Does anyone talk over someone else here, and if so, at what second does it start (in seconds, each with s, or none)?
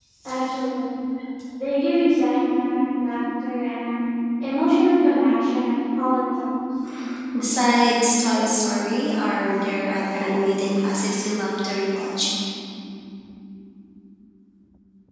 none